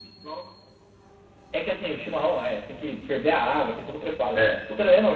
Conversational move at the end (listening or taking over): listening